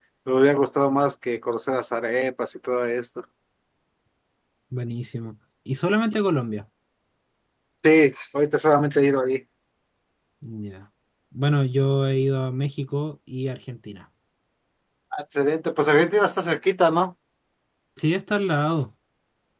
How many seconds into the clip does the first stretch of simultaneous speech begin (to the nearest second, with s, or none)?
none